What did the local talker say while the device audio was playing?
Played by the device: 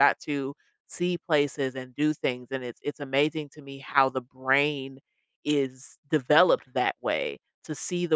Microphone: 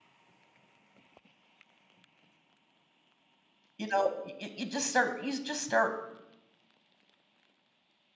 you know, y you just start you just start

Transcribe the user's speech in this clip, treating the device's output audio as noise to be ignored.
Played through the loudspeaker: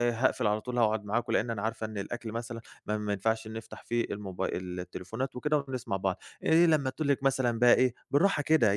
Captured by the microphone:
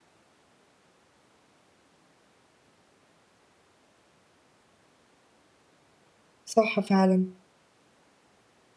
صح فعلًا.

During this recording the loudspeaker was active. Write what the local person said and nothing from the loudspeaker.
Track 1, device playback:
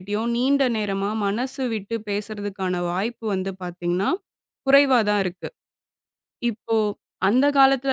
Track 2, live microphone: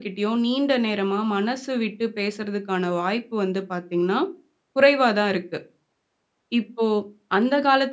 none

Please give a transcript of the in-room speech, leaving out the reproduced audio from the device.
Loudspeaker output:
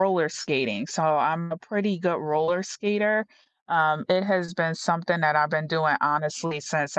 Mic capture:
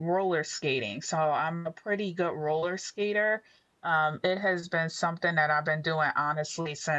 none

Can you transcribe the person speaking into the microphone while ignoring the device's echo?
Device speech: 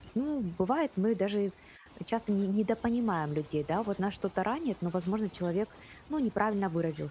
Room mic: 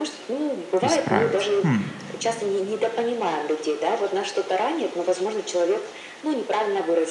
исправить. Хм,

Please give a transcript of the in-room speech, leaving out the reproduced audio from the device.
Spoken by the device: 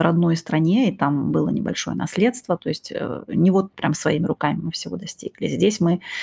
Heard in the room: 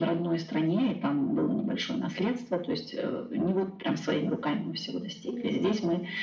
Понимаю.

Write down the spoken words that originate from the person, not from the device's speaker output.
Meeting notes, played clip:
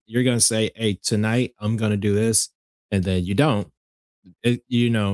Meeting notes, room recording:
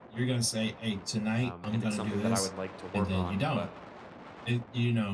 Um, and it's something that I would like to work on, but

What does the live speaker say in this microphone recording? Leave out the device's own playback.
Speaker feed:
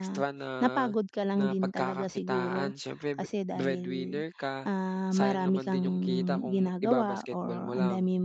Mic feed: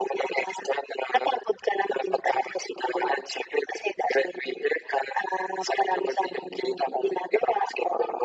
none

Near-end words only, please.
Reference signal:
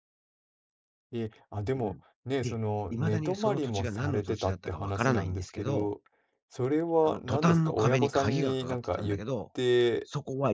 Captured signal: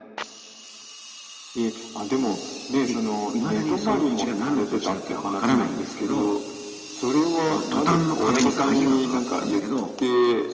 none

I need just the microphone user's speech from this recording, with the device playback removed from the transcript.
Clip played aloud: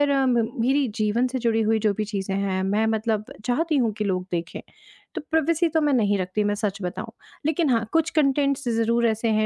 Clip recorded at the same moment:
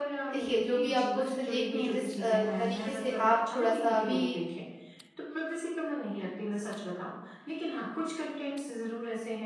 देखिए, जो भी आप पोस्ट देख रही हैं, जिस अ, तरीके से आप थोड़ा-सा भी

